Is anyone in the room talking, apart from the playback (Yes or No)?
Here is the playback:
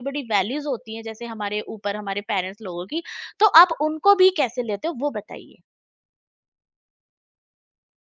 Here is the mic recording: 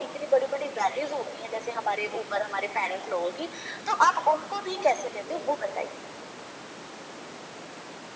No